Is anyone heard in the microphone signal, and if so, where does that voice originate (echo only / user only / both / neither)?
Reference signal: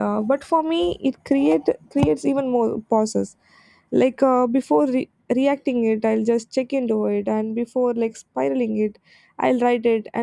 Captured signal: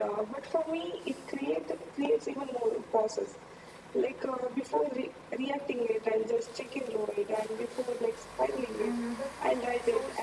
both